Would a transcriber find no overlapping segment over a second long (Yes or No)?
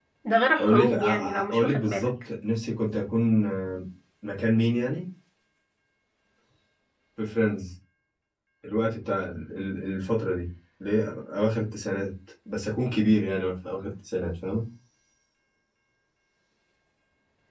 No